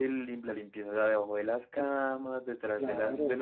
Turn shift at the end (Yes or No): No